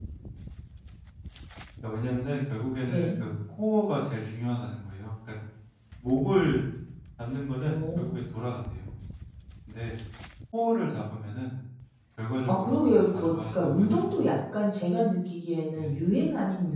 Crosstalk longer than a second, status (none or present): present